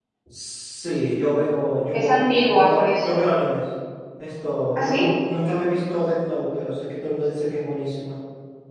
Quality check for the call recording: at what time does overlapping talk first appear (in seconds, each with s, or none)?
1.9 s